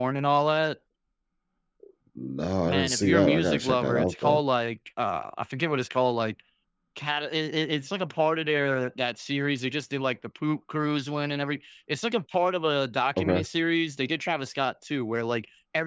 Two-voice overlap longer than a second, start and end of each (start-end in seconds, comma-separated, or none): 2.6-4.4